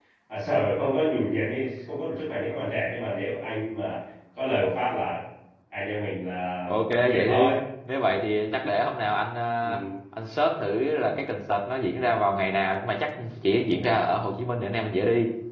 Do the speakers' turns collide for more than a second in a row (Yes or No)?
No